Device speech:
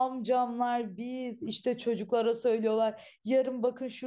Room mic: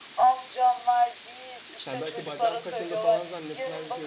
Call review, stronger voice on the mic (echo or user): echo